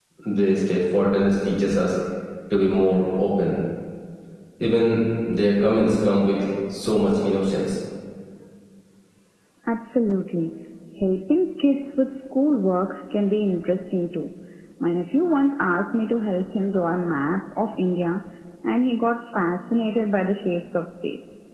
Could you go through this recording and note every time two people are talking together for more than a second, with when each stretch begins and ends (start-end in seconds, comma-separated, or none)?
none